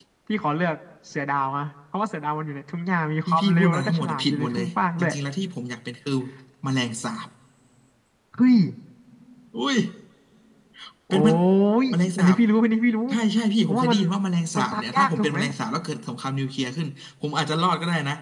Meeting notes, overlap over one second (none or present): present